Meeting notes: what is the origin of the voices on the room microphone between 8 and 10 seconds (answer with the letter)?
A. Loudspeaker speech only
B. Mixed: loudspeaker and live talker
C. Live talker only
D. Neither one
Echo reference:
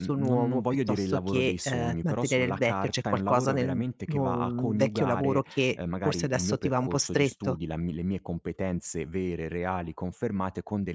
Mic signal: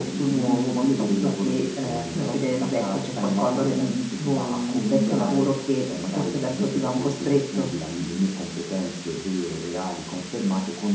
A